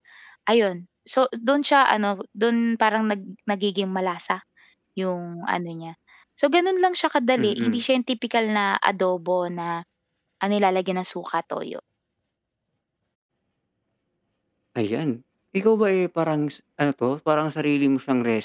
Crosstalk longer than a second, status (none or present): none